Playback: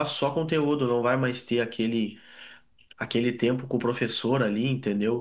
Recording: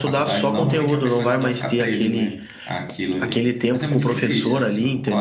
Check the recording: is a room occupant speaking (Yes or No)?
Yes